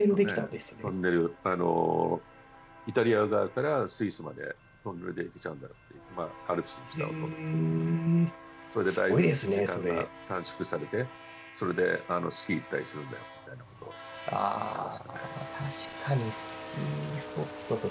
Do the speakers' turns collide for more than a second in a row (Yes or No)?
Yes